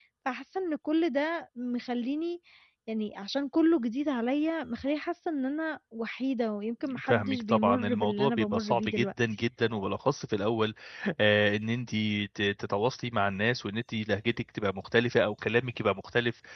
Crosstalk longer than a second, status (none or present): present